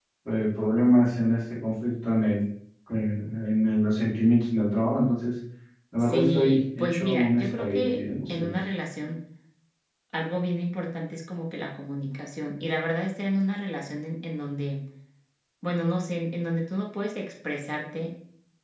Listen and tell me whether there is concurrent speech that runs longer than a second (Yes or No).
Yes